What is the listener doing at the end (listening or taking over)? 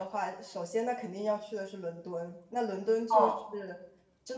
listening